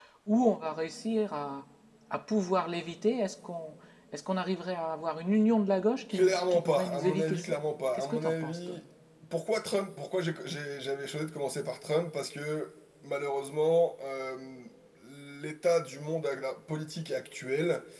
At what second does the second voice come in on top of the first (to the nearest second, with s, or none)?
6 s